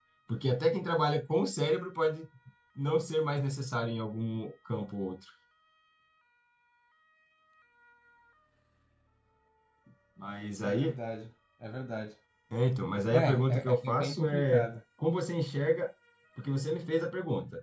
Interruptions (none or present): present